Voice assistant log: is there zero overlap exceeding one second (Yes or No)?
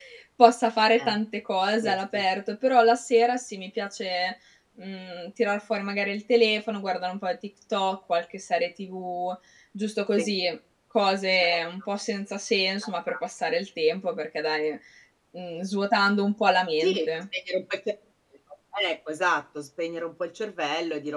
Yes